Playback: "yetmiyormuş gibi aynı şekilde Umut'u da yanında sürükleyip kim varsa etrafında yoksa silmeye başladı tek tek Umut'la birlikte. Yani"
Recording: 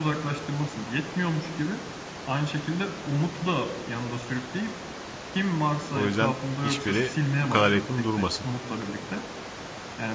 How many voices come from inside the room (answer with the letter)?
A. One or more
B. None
A